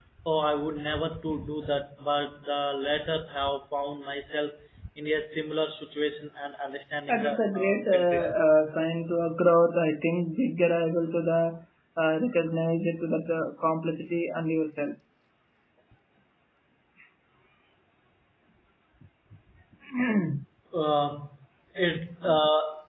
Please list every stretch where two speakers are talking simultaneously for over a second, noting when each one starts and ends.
7.1-8.4

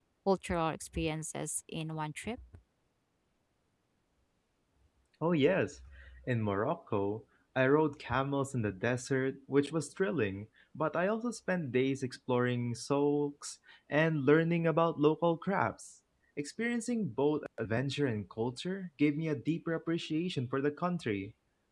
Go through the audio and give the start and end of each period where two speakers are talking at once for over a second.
none

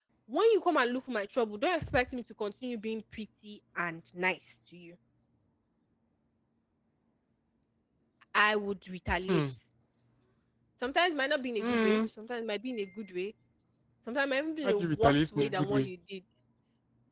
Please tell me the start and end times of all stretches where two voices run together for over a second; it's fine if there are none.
14.6-15.9

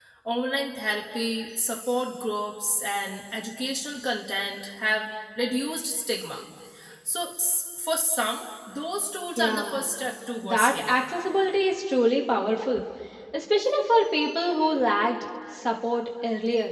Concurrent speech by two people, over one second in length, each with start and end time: none

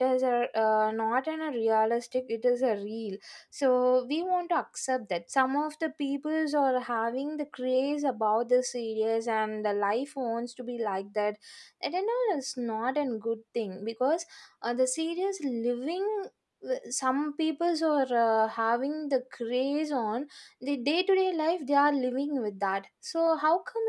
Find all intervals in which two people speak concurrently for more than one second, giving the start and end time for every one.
none

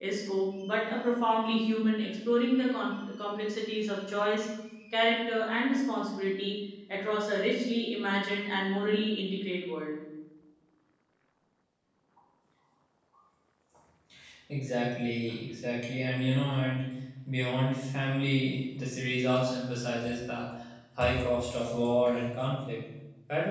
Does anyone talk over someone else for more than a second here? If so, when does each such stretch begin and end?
none

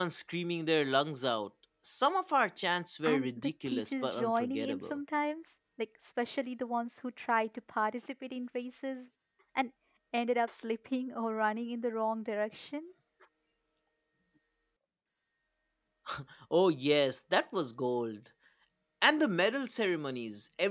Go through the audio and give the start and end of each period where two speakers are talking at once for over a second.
3.0-5.0

